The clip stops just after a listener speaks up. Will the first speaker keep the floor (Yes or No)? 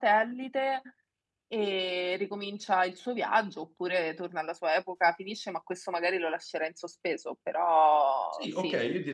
No